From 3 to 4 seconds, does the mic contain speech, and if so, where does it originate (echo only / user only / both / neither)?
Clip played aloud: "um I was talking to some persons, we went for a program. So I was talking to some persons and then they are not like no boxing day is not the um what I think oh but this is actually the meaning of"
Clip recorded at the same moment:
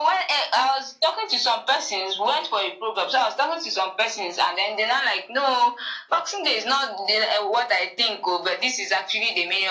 echo only